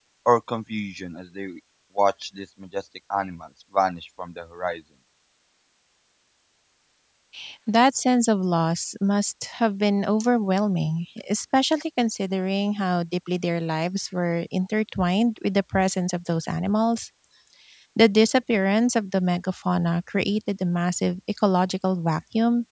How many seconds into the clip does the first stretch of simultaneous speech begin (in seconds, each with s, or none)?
none